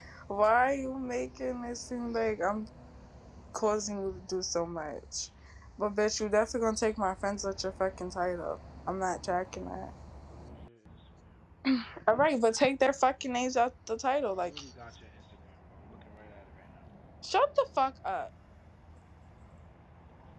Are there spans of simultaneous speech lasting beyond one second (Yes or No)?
No